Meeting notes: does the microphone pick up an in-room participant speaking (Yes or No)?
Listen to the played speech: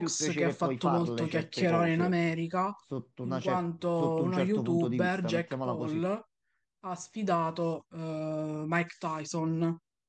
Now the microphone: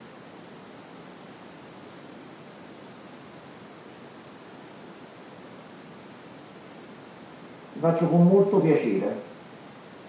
Yes